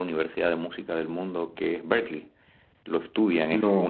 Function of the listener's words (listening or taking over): listening